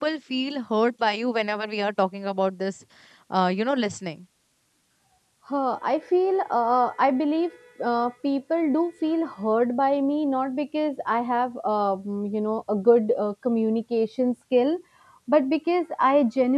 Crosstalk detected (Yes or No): No